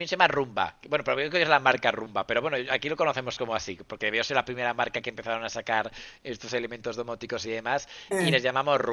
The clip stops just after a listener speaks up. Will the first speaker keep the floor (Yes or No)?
Yes